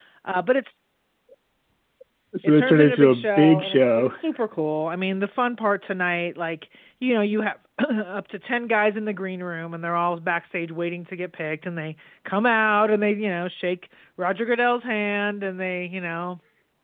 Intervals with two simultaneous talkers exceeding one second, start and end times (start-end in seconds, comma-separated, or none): 2.4-4.1